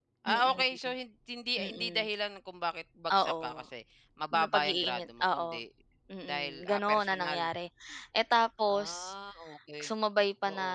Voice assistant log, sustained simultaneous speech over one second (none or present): present